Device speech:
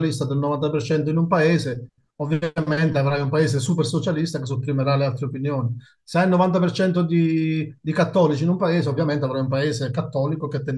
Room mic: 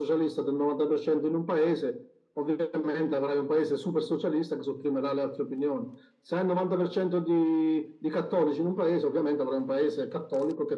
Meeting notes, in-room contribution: none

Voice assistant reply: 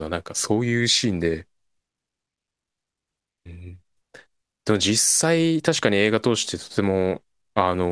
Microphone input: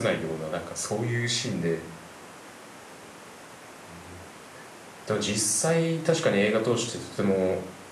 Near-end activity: none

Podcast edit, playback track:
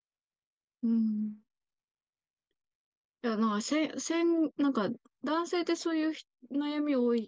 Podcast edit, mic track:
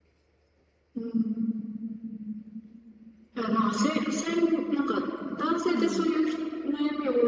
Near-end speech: present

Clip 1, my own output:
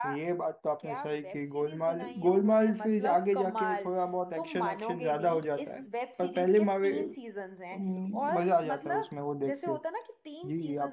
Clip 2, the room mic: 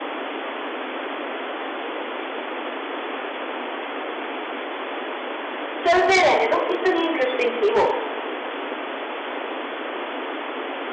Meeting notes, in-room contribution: present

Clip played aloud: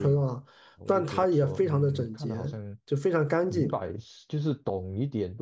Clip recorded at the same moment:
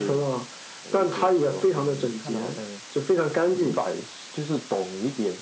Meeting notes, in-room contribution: none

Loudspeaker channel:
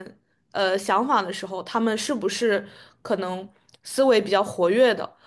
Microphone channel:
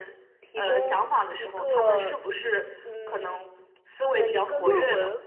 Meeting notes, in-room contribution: present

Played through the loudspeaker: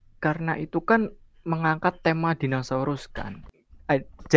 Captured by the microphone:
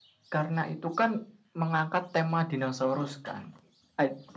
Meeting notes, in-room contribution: none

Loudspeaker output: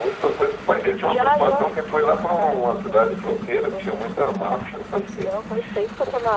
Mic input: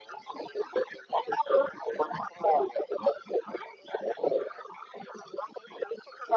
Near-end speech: none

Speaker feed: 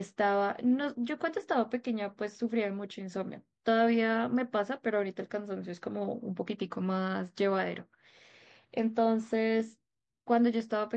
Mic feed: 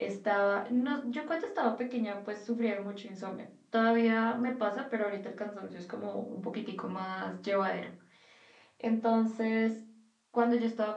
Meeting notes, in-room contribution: none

